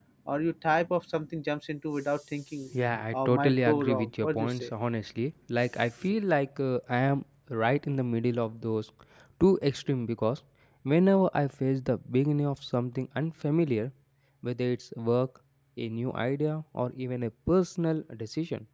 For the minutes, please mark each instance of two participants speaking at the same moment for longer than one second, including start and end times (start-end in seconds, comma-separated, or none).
3.1-4.7